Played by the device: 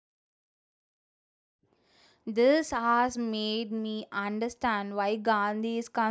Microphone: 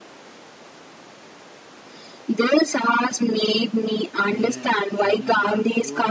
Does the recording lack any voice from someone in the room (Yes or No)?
No